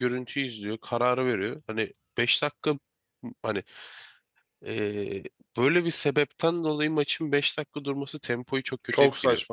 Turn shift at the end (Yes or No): Yes